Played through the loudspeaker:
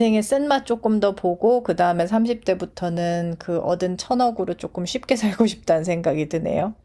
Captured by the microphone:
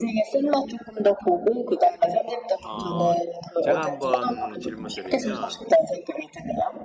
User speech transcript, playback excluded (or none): 어, 제가 한번 질문드리면